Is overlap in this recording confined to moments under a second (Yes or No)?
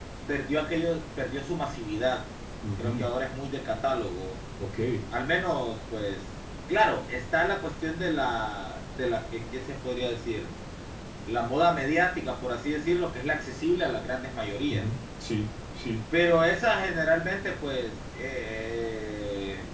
Yes